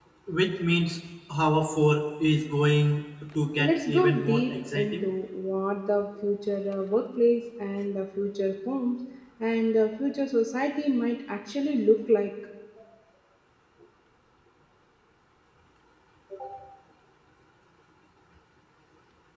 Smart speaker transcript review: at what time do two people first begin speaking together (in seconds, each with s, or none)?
3.6 s